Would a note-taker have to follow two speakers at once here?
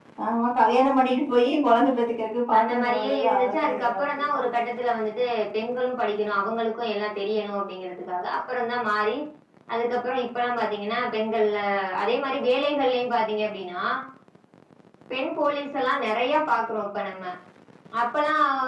Yes, from 2.5 s

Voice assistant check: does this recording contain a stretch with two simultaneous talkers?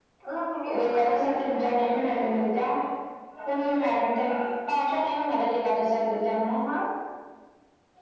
Yes, from 0.8 s

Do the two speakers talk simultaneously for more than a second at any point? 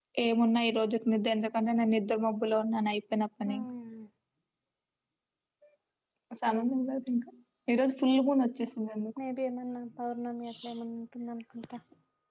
No

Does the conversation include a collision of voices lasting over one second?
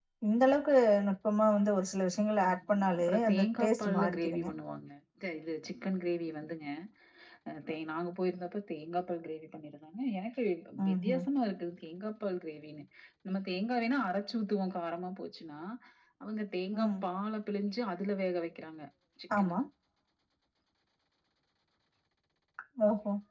Yes, from 2.5 s

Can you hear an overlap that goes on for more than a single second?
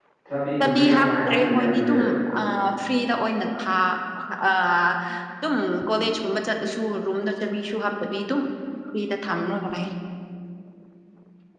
Yes, from 0.6 s

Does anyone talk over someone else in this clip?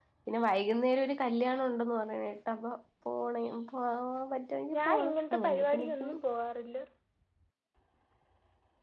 Yes, from 4.7 s

